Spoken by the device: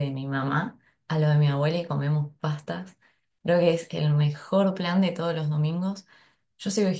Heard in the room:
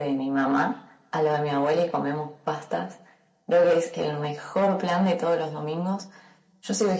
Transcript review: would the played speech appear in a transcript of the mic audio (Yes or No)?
Yes